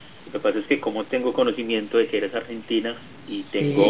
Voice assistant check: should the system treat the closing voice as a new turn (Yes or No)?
No